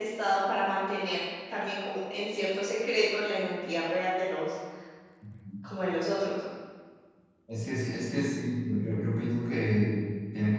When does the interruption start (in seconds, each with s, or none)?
none